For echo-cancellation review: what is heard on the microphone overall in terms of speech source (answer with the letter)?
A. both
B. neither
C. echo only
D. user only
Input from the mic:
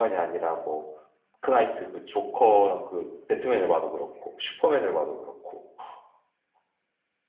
C